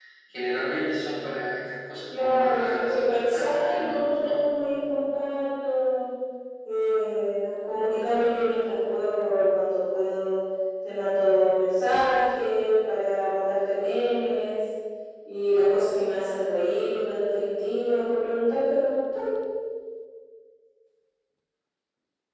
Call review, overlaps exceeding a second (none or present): present